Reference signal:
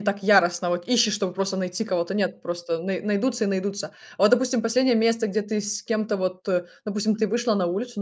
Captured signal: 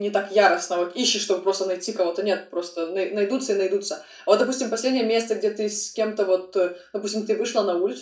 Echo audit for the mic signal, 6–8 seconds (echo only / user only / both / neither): echo only